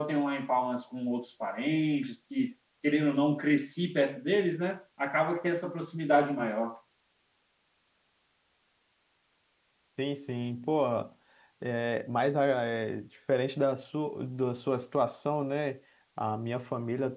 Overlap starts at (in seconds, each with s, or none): none